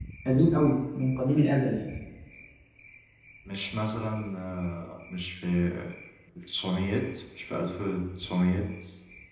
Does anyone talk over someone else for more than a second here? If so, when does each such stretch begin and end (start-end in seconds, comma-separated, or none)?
none